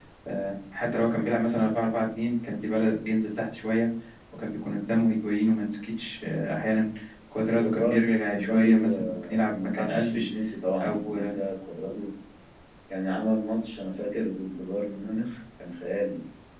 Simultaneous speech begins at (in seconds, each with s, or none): 7.6 s